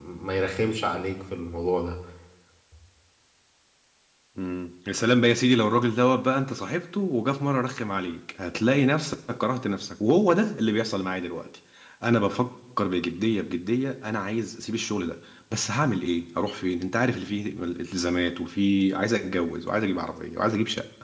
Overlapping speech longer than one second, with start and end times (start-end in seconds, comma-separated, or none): none